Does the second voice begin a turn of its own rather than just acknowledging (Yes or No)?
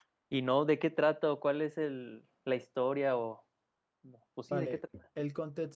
Yes